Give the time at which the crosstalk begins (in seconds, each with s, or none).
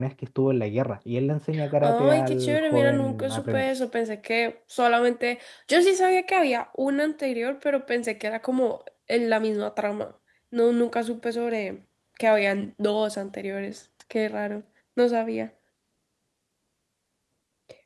1.8 s